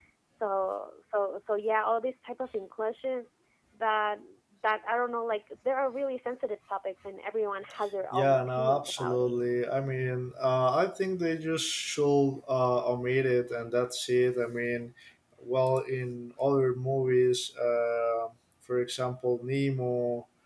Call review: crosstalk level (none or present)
present